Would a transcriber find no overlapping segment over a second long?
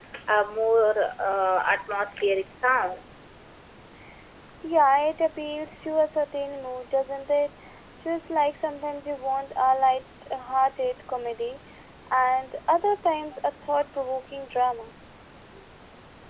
Yes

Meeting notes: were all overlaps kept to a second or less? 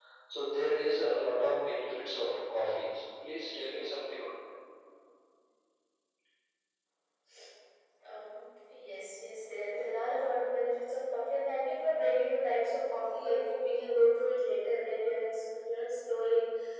Yes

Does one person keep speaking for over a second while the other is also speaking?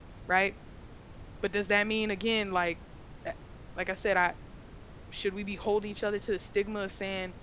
No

